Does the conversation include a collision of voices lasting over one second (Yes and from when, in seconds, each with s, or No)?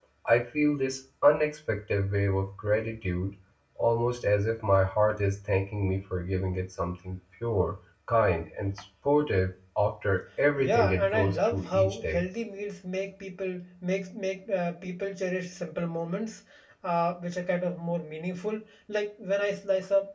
Yes, from 10.6 s